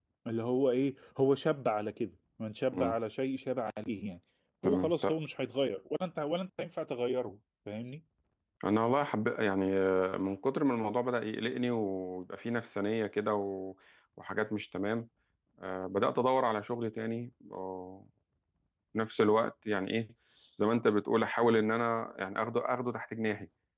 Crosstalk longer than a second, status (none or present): none